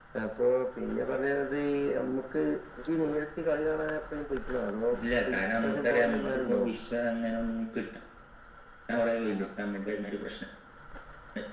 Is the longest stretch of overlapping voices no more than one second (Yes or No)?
No